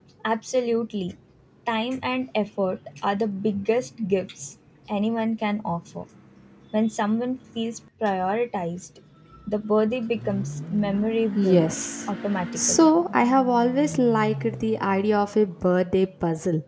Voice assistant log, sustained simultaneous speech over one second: none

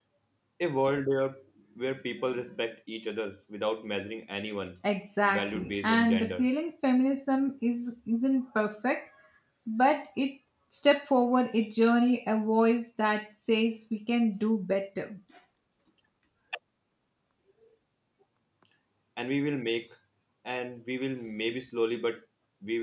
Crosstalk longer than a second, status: present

